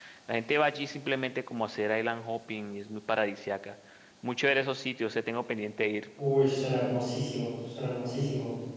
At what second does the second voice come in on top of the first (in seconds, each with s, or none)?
none